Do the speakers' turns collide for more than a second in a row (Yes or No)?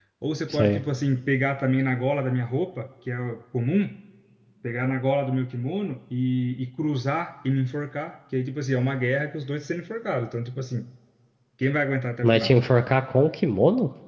No